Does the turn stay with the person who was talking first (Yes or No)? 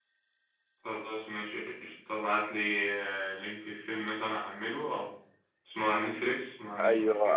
No